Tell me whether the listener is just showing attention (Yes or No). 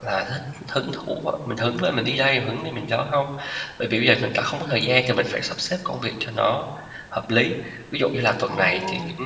Yes